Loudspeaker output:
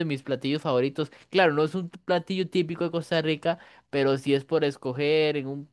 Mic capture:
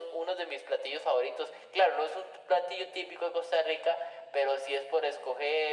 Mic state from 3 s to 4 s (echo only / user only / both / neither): echo only